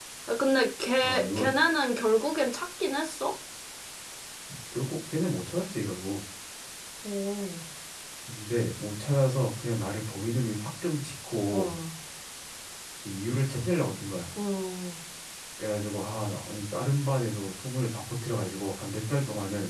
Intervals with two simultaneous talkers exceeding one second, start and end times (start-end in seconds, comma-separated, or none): none